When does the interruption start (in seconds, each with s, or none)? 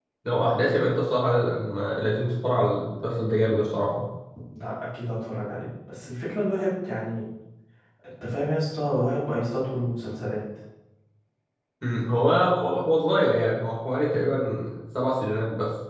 none